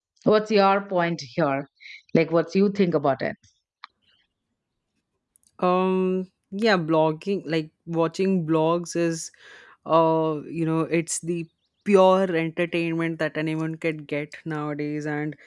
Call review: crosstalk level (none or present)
none